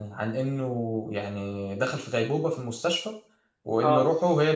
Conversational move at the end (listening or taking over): listening